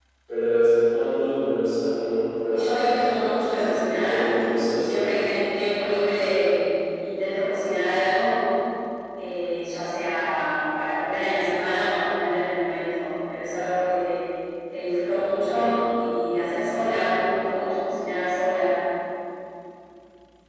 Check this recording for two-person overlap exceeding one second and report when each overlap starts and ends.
2.5-4.2

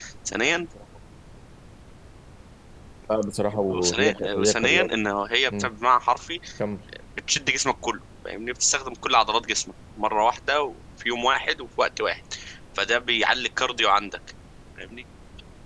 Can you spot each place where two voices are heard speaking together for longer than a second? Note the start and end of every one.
3.7-5.0

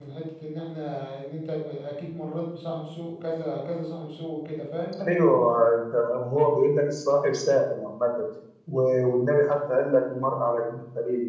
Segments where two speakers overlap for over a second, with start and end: none

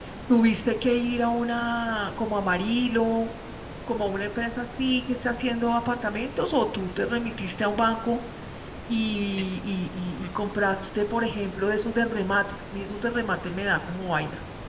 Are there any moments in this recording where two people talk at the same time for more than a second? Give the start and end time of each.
none

